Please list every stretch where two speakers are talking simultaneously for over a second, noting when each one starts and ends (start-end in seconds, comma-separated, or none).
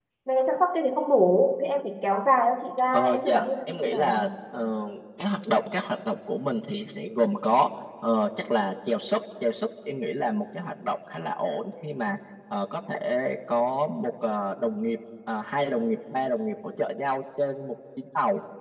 2.9-4.3